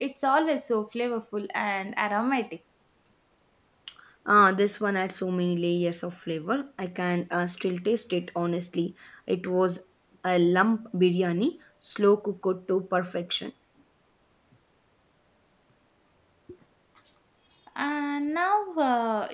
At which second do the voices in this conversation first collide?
none

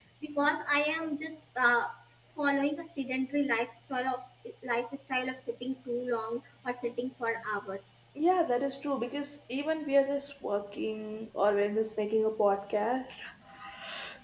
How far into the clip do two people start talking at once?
none

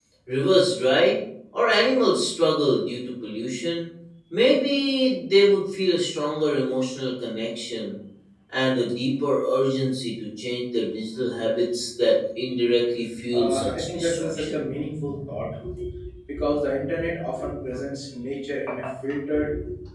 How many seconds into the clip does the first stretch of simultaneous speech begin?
13 s

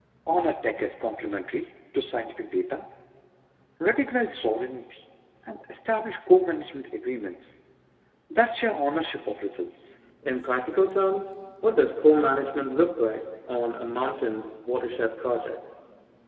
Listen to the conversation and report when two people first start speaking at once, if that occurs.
none

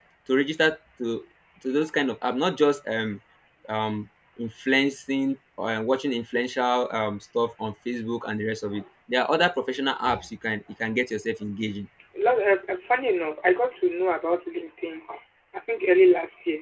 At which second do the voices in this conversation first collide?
none

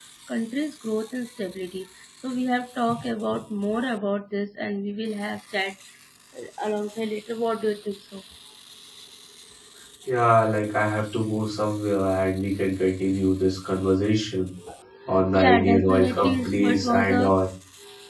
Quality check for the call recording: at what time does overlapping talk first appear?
15 s

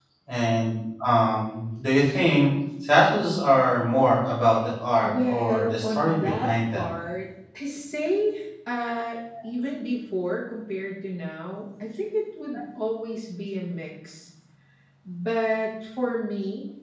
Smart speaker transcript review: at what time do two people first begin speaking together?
5 s

